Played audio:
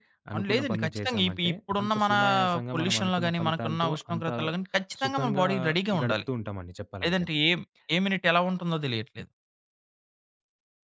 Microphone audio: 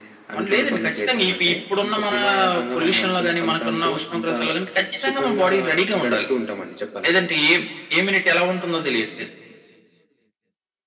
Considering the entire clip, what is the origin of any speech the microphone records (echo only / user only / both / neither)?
echo only